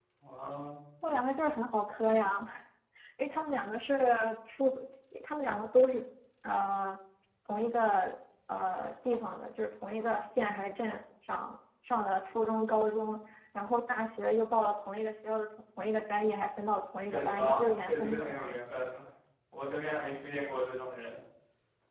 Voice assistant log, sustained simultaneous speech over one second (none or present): present